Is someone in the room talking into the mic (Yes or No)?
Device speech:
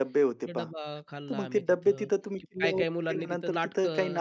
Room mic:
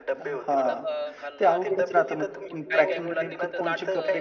Yes